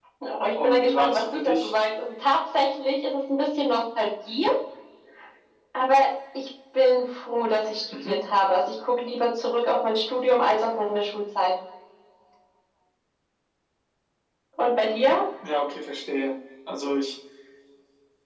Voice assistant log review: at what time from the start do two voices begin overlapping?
0.5 s

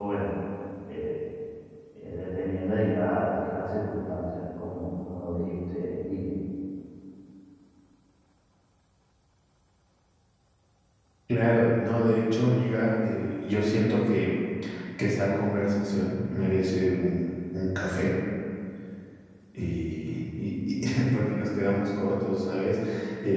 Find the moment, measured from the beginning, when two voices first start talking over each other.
none

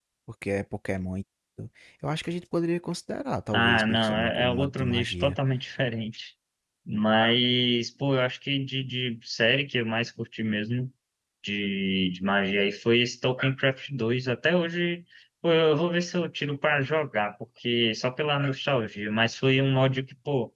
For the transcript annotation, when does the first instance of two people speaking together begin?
3.5 s

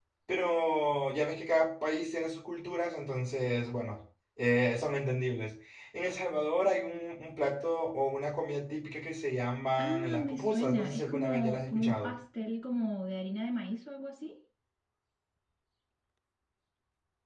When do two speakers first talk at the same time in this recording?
9.8 s

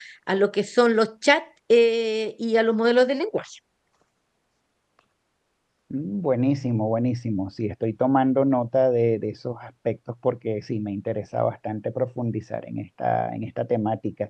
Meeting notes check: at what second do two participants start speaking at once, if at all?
none

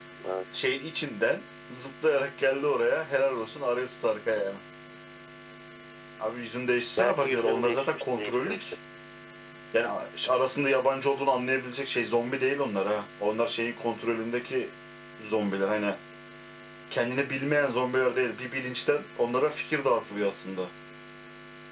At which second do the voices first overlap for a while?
7.0 s

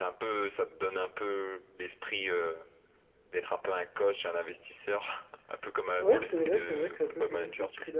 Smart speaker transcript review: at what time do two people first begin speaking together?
6.0 s

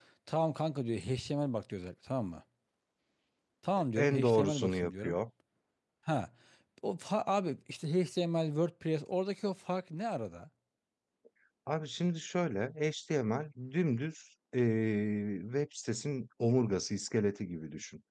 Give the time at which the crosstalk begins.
4.0 s

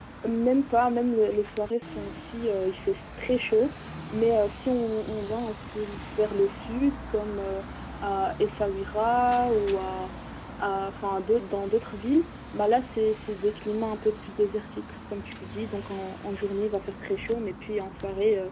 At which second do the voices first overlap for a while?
none

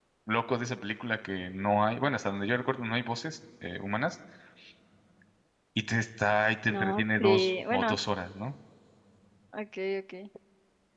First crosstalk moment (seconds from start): 6.7 s

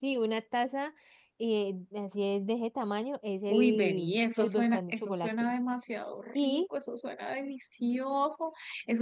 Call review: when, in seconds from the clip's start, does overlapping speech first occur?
3.5 s

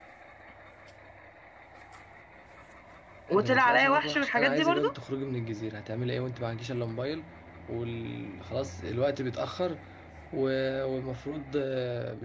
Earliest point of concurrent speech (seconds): 3.3 s

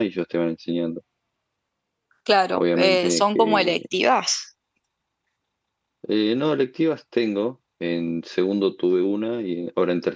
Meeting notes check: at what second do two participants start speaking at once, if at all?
2.6 s

